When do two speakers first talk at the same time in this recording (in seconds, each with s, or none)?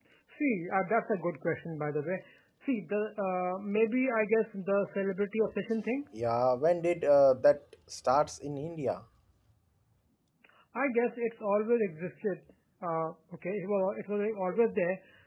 none